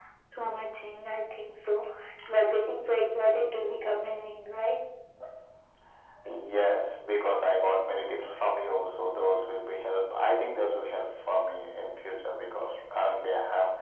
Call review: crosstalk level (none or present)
none